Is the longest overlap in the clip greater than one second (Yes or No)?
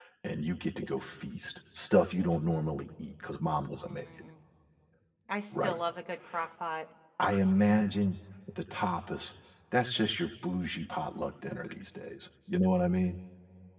No